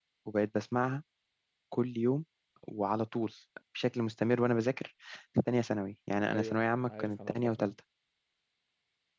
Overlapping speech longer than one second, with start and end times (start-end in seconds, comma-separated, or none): 6.3-7.7